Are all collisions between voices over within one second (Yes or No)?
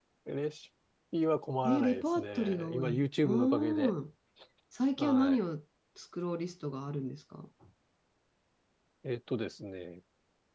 No